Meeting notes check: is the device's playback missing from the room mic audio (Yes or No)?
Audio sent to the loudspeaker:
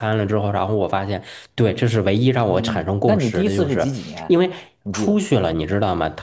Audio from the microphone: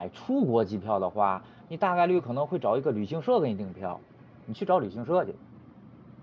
Yes